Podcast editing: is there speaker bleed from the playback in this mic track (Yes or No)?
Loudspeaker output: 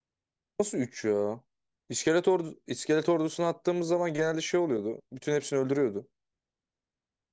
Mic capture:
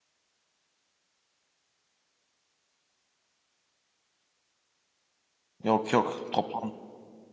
No